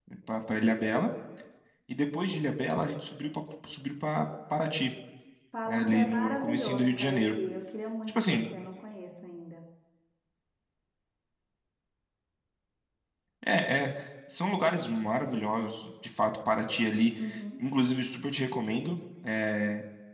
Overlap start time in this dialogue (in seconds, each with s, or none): 5.7 s